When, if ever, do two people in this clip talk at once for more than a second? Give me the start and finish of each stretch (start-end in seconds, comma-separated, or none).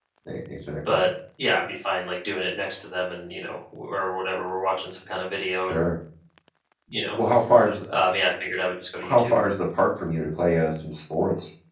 none